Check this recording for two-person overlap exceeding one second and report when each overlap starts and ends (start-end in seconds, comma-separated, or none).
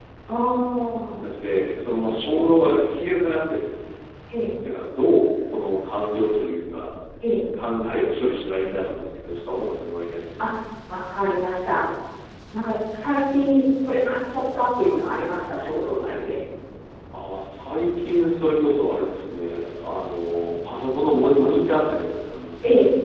none